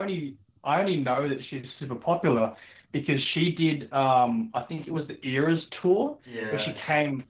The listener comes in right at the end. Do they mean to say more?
No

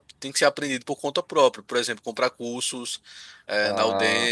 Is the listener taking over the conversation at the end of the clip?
Yes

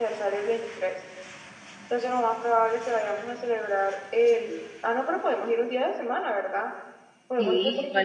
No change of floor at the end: No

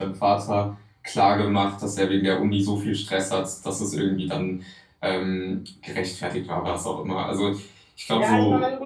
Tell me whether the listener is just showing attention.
No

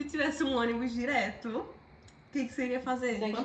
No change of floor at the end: No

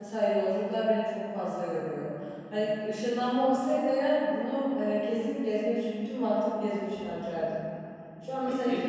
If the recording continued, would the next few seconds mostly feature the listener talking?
No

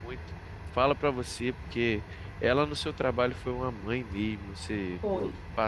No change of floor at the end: Yes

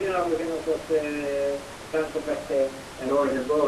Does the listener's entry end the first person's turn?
Yes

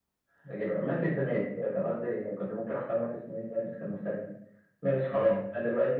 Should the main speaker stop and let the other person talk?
No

